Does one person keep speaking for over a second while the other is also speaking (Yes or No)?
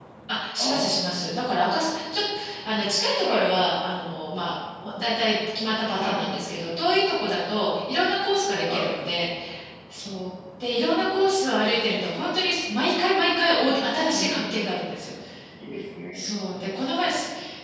No